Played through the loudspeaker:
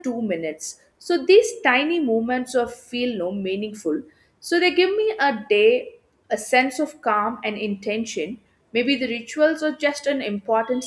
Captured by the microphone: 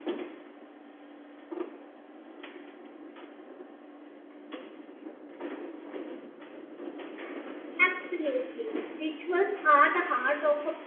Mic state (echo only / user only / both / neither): user only